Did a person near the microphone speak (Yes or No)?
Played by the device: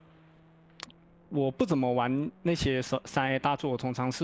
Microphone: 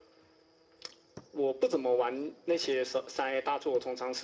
No